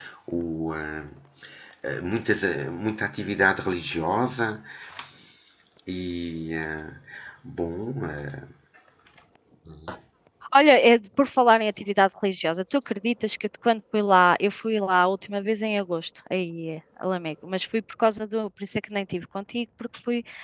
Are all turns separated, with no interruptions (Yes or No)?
Yes